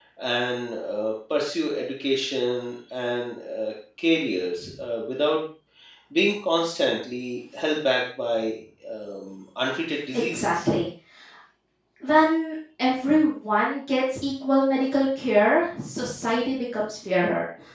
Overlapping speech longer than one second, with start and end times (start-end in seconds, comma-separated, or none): none